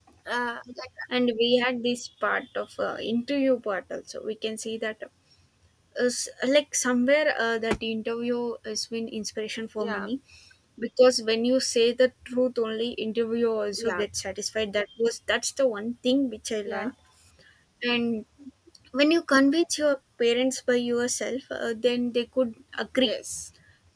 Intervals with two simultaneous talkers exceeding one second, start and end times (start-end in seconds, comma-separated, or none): none